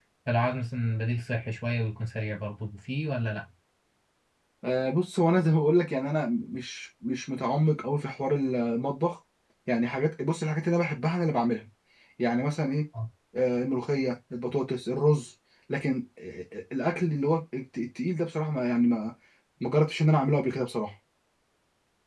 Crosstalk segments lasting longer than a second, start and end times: none

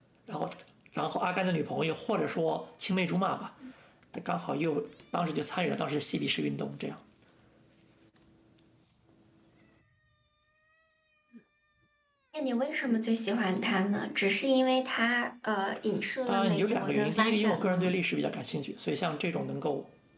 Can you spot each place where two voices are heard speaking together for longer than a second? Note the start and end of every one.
16.3-18.0

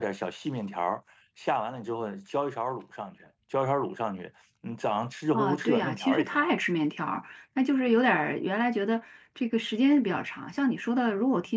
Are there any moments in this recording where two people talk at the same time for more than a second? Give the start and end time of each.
5.3-6.5

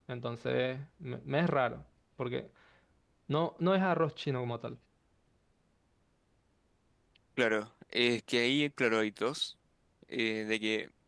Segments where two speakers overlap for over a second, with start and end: none

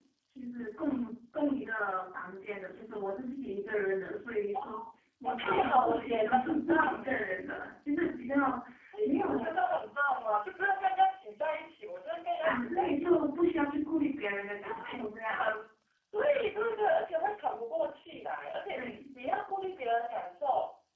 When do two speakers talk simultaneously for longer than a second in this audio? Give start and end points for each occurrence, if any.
5.2-7.3

